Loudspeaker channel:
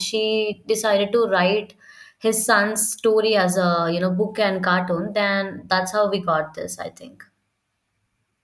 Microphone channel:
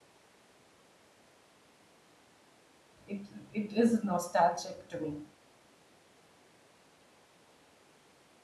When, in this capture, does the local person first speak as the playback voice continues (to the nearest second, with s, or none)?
3 s